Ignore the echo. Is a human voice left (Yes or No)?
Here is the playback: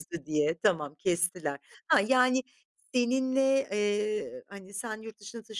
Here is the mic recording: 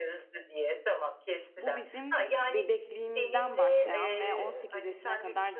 Yes